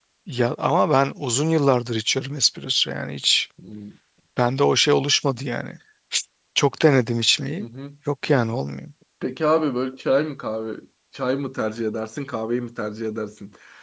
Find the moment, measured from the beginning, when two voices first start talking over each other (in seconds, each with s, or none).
none